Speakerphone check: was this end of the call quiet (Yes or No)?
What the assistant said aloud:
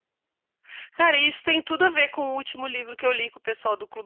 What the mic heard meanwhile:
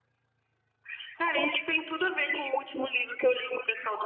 Yes